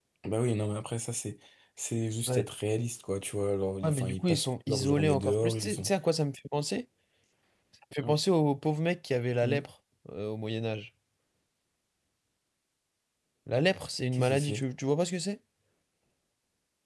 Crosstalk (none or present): present